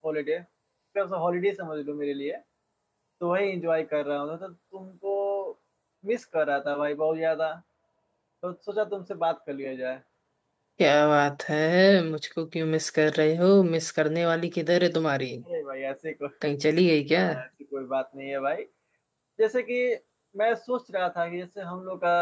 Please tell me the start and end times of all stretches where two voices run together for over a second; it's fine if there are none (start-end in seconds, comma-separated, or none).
none